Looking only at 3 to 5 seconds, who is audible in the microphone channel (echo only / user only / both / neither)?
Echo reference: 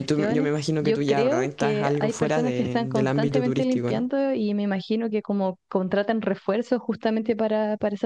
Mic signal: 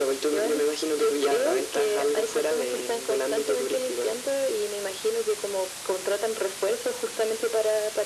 echo only